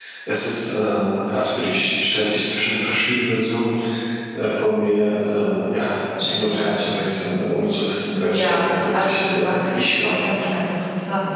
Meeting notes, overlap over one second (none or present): present